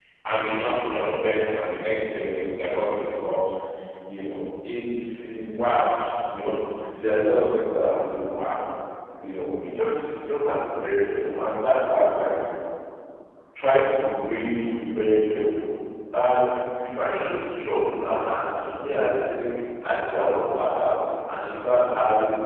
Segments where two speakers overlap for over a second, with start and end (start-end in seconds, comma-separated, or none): none